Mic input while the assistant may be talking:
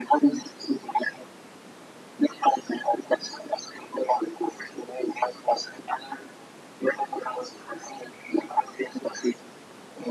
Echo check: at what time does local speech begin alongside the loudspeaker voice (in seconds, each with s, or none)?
none